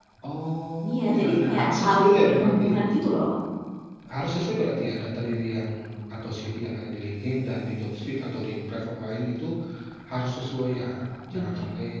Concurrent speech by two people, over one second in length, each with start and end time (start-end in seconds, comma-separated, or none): 0.9-2.7